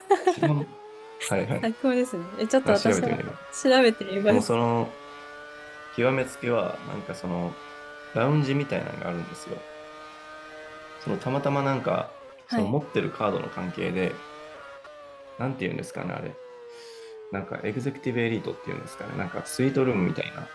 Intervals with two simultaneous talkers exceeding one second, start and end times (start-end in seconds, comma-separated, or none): none